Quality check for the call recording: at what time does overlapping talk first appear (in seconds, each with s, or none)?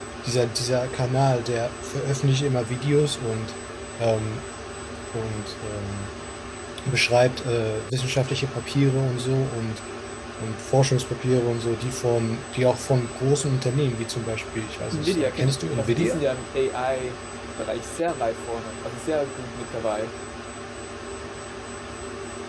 14.9 s